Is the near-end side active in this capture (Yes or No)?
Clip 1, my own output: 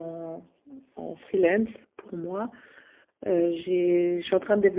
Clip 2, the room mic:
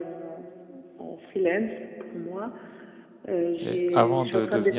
Yes